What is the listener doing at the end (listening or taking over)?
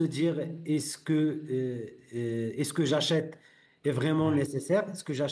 listening